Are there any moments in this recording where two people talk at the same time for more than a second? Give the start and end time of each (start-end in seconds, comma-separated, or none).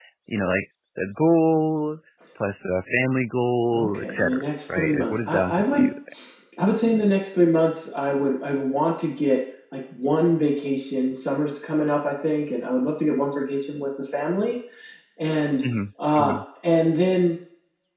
3.7-5.9